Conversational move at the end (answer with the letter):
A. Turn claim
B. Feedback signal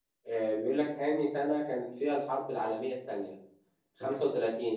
B